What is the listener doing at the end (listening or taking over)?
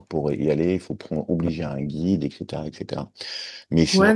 taking over